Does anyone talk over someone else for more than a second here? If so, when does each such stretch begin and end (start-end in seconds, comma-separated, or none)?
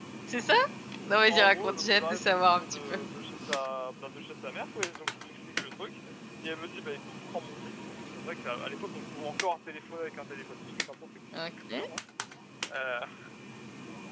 1.3-3.0